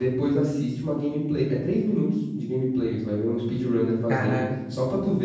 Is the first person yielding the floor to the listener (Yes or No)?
No